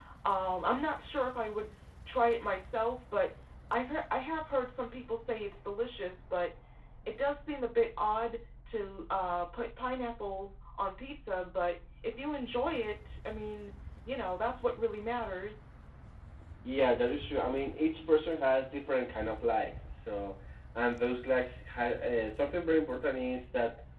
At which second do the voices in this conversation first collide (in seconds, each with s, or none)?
none